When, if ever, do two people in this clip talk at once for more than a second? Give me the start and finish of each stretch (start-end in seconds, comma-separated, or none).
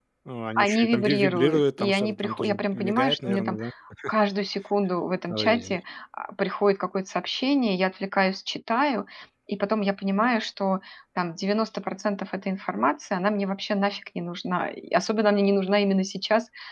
0.6-3.6